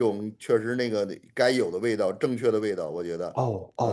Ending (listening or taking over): taking over